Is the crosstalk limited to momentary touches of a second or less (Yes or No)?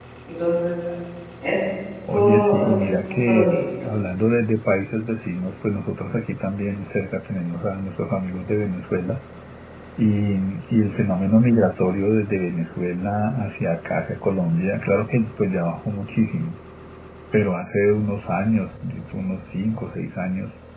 No